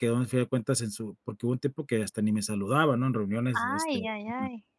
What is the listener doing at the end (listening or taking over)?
taking over